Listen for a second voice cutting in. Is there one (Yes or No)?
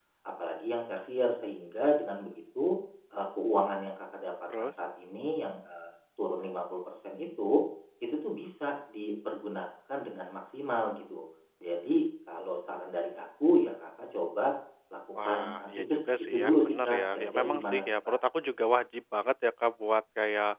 Yes